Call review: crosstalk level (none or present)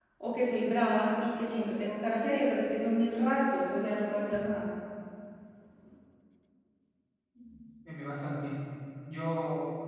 none